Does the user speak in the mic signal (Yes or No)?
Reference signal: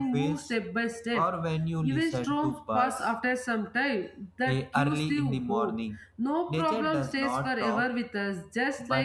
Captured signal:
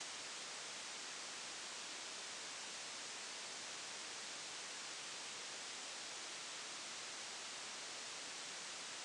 No